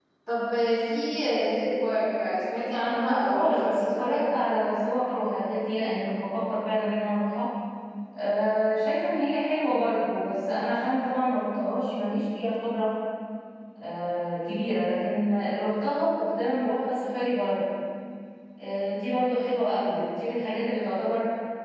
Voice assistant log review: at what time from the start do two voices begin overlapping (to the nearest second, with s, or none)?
3 s